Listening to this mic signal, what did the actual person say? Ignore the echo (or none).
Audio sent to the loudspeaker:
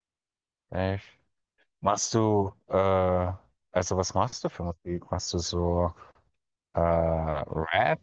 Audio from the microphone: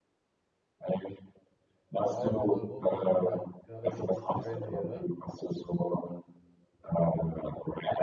vor allem in Europa gerade gerade richtig trendy, oder?